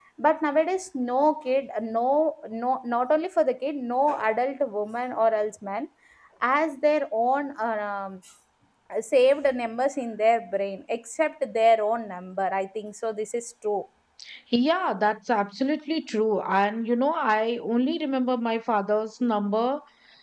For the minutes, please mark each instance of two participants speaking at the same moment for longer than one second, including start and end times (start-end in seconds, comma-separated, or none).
none